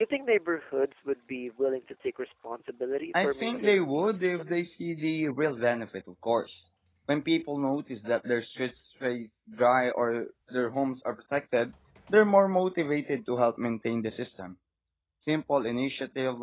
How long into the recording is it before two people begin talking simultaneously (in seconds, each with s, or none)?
3.1 s